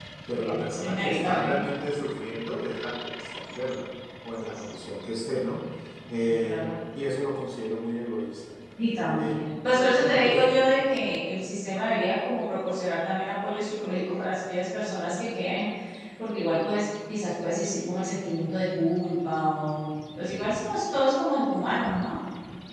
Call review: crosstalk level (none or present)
present